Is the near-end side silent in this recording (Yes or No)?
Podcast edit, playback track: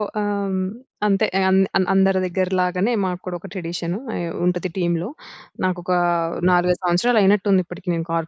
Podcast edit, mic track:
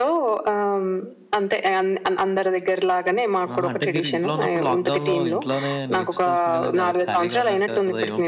No